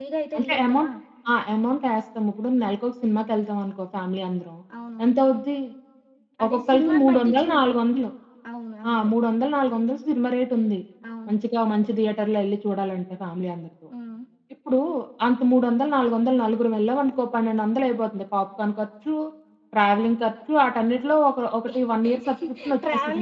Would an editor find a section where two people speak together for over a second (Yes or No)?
Yes